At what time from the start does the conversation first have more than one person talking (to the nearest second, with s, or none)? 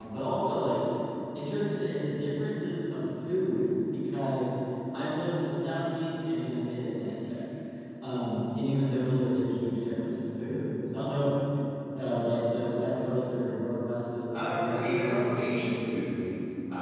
14 s